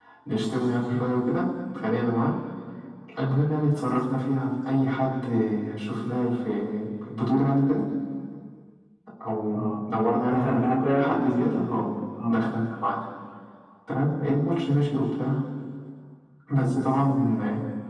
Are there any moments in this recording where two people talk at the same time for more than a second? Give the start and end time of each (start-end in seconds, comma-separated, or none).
10.3-11.8